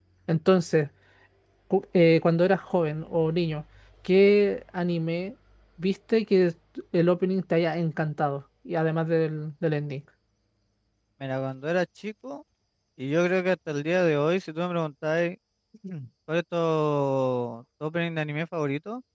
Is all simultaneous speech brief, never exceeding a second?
Yes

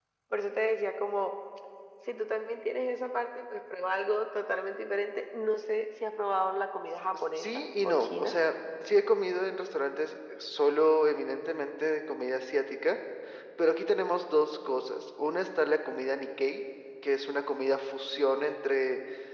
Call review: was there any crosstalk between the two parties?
Yes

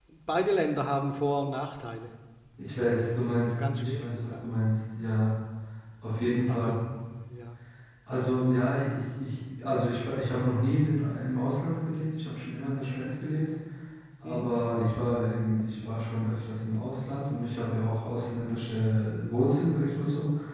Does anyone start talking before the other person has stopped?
Yes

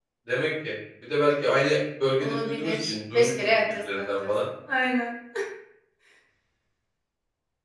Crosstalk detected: Yes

